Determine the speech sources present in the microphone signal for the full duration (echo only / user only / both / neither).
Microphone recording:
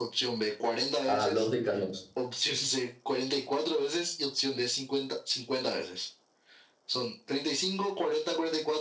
both